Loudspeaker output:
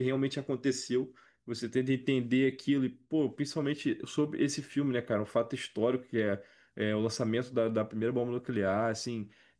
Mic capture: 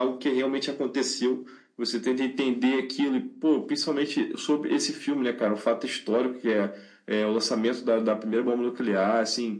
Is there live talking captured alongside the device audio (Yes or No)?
No